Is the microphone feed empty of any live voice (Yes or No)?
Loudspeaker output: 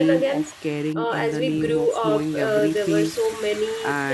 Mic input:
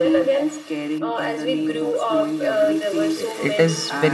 No